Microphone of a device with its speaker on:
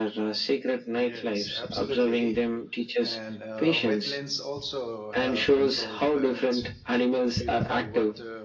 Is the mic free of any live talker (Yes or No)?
No